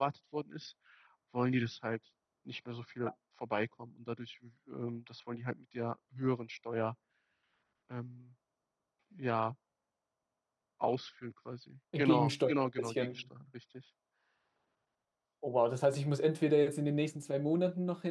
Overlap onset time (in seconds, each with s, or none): 11.9 s